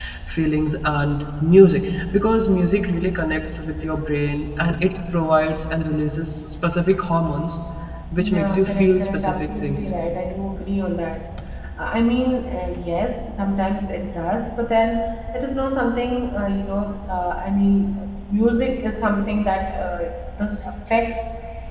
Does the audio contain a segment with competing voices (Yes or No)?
Yes